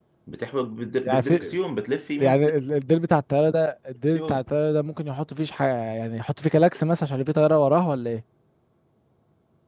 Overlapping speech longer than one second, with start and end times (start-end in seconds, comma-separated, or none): none